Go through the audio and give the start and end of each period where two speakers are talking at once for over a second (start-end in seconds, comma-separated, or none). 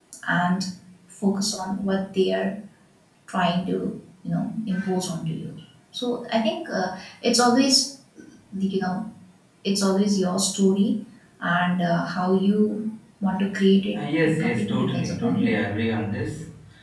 14.0-15.5